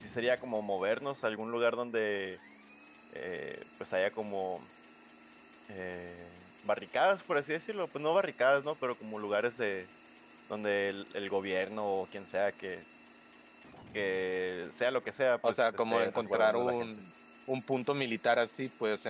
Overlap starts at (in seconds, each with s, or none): 15.4 s